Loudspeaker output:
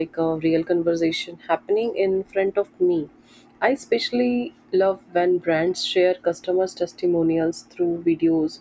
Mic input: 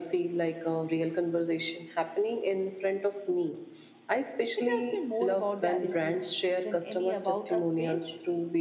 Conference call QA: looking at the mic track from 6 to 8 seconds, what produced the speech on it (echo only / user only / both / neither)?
both